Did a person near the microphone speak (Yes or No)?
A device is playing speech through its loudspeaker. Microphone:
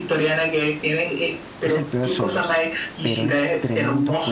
Yes